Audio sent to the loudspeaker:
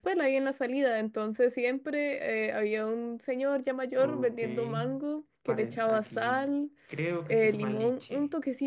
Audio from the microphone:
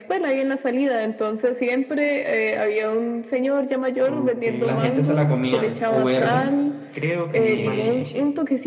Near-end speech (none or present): present